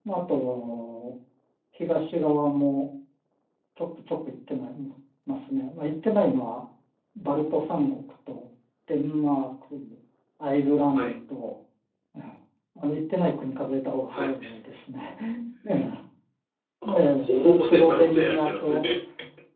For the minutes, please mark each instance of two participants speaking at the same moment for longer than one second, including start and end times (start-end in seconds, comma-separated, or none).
16.9-18.9